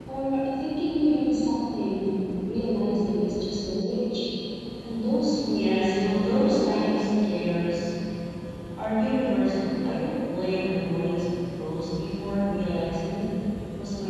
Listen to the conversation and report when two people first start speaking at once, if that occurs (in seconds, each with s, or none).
5.5 s